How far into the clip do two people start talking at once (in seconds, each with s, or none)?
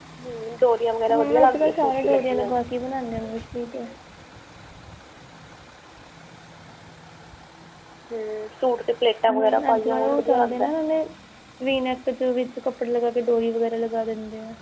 1.1 s